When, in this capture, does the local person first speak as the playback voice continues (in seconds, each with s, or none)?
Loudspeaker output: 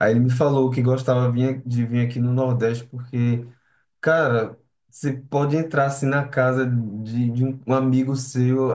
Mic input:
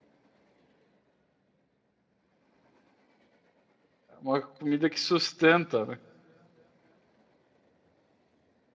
4.1 s